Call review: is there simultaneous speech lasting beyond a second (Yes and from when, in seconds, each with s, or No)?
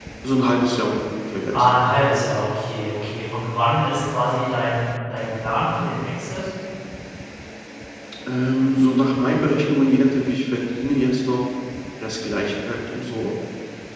No